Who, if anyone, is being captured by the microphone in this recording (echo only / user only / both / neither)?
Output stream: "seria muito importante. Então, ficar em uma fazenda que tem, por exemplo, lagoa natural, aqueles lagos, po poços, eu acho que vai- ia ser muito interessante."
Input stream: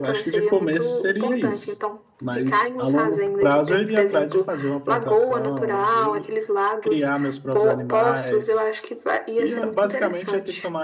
both